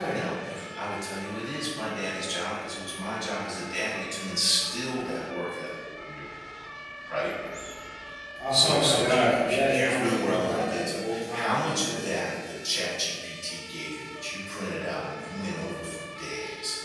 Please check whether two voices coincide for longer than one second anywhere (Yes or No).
Yes